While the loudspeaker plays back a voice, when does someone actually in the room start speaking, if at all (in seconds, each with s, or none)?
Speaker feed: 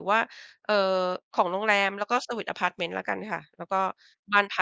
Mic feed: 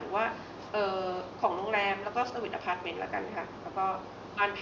none